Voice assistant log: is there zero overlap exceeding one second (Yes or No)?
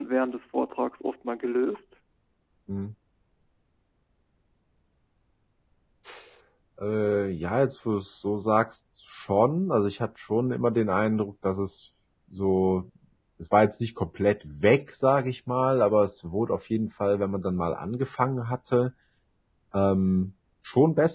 Yes